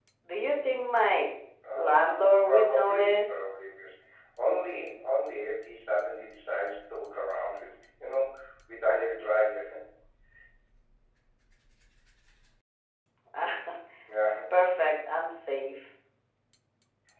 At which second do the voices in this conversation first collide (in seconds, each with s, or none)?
1.8 s